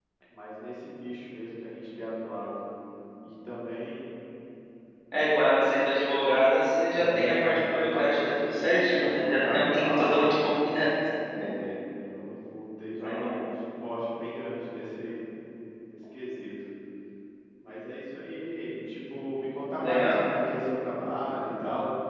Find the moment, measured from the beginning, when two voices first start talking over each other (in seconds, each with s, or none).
6.9 s